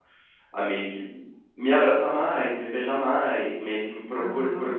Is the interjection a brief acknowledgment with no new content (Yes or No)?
No